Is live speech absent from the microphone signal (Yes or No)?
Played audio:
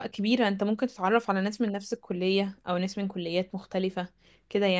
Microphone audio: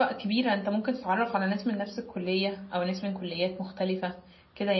Yes